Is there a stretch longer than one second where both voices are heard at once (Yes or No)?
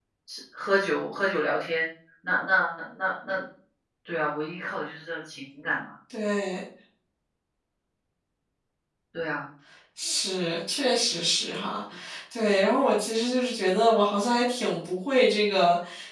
No